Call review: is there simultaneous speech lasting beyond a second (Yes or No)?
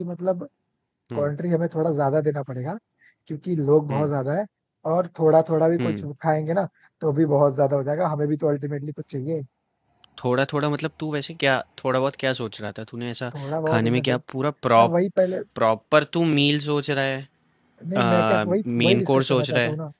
Yes